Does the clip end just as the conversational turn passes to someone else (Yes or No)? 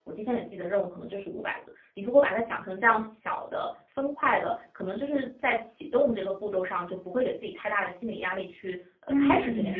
Yes